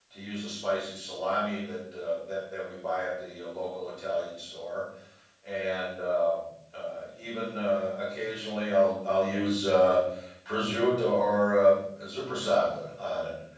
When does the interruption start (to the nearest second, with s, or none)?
none